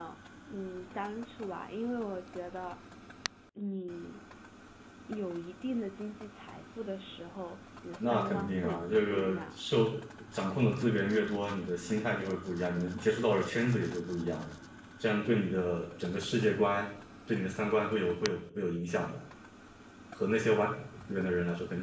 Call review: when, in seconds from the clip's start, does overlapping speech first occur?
8 s

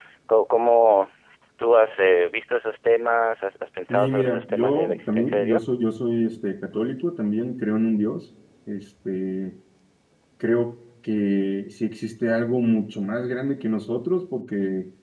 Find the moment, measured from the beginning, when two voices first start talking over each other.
4 s

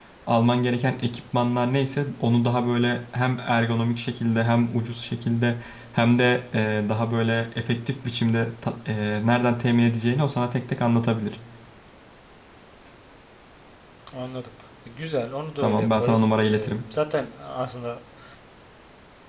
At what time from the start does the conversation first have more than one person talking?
16 s

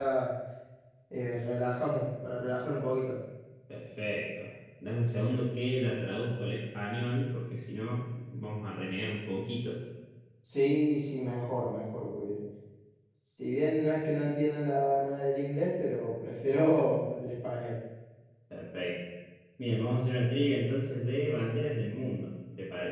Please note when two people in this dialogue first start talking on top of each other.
none

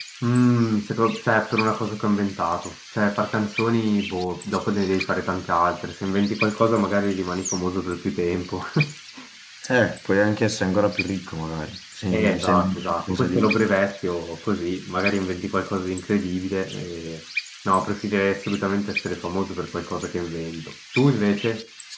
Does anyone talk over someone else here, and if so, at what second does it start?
12 s

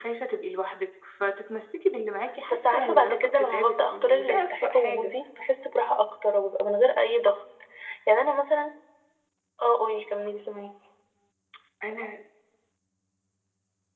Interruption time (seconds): 2 s

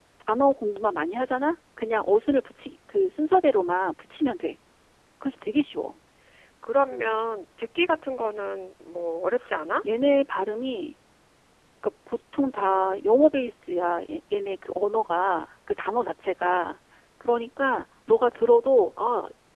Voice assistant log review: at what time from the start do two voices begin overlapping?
none

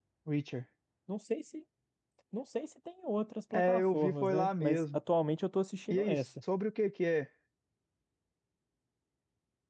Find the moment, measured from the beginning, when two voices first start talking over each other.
4 s

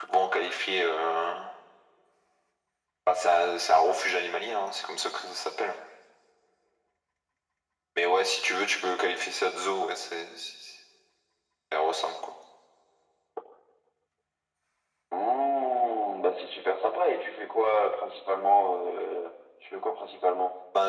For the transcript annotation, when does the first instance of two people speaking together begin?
none

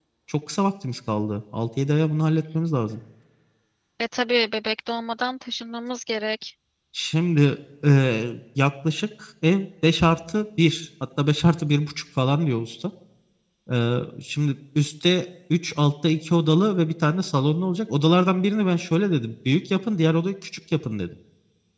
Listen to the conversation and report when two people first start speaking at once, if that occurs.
none

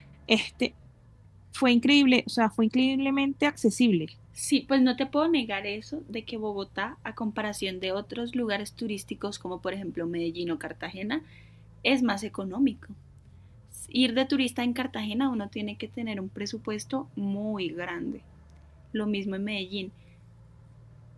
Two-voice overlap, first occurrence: none

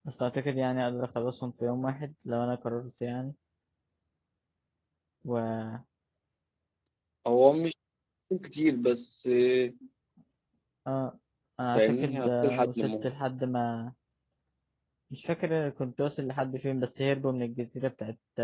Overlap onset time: 12 s

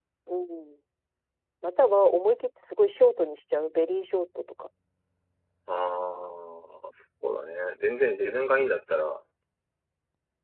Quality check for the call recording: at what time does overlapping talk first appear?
none

